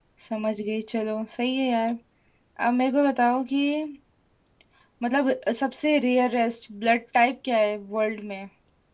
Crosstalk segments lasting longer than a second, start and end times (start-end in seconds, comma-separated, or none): none